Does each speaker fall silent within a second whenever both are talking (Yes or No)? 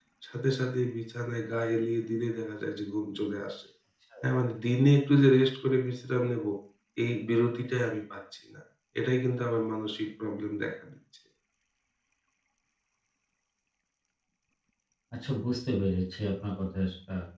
Yes